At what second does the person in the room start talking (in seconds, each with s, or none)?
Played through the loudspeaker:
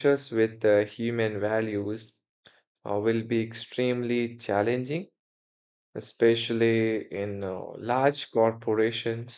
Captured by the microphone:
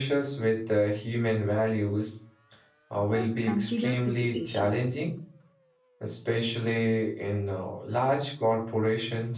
3.1 s